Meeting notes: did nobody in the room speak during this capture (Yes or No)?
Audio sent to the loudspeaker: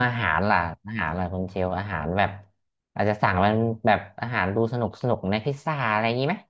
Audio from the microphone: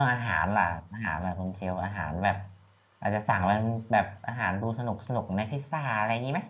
Yes